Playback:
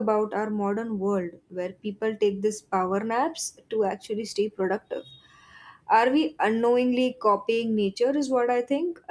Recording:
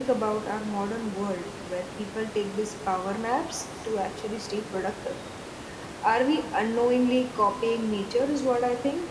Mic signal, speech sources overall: echo only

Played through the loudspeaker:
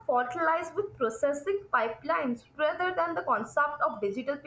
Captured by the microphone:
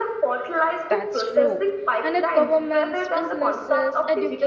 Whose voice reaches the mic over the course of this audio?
both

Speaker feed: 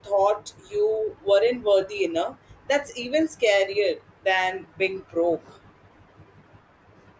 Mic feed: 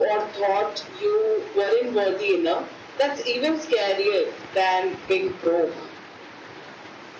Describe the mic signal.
echo only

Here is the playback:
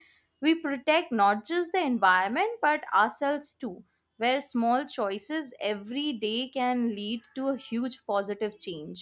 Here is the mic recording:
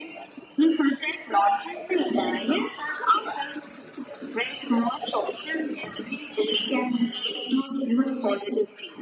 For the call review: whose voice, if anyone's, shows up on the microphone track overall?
echo only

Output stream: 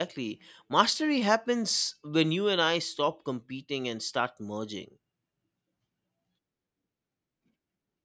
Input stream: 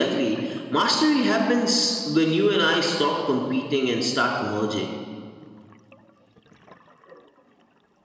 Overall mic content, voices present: echo only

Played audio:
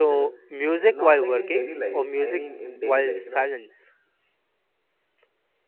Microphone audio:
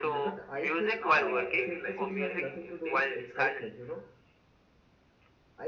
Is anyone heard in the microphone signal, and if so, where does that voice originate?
both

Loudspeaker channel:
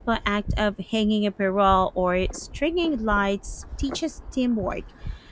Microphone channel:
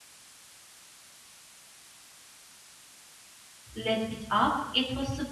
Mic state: user only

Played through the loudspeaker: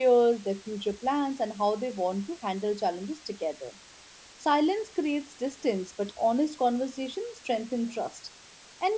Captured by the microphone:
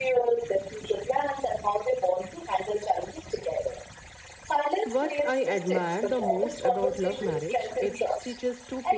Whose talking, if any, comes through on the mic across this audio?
both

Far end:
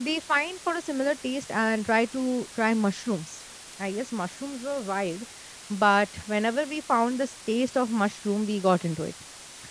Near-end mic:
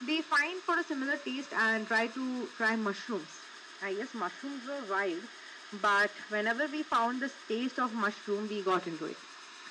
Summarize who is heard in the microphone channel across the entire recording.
echo only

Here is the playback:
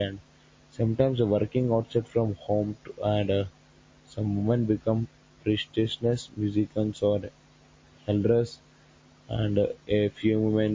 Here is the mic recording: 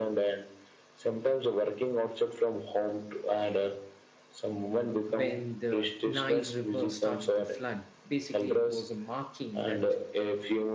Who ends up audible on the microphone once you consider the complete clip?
both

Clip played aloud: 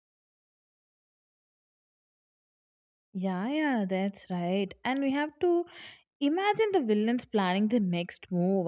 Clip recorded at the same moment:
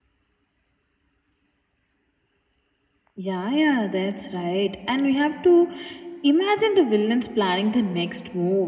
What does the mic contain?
echo only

